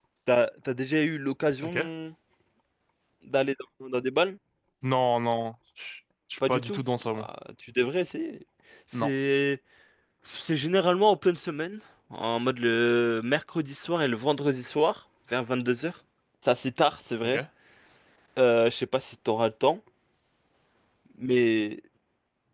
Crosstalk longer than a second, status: none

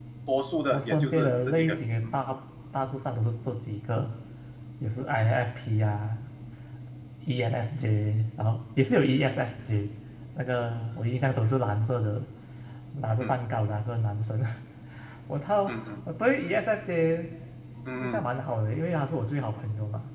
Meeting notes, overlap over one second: present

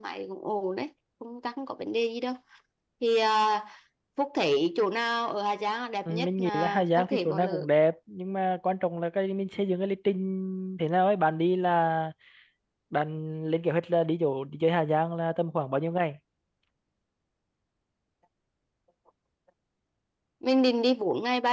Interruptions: present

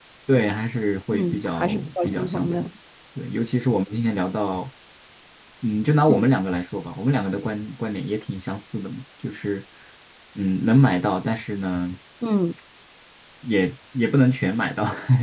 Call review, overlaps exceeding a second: present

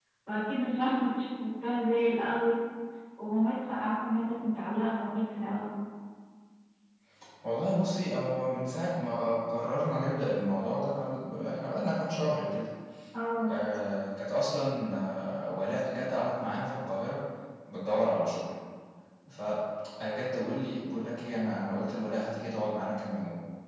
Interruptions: none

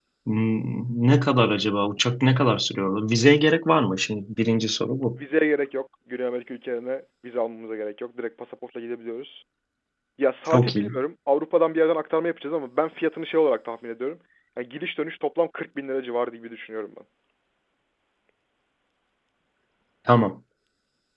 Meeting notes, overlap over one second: none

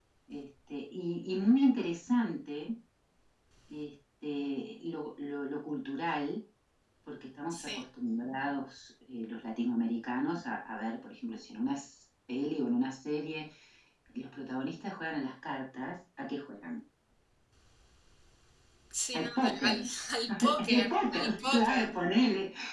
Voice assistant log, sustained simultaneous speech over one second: present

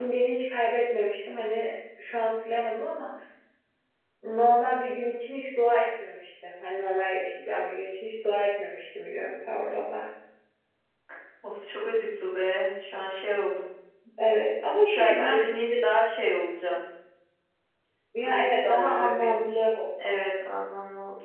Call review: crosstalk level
present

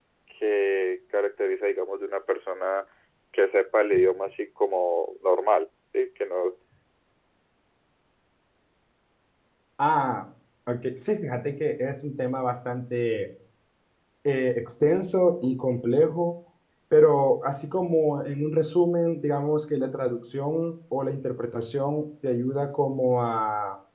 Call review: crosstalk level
none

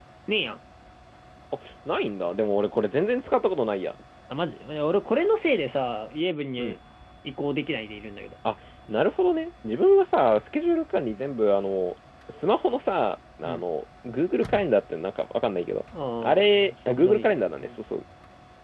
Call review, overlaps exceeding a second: present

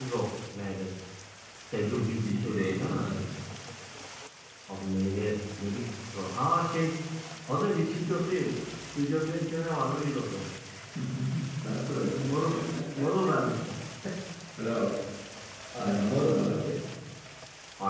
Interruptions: present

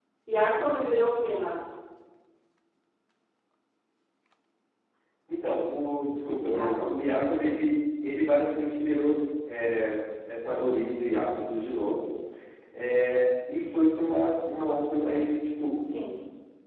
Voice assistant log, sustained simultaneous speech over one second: none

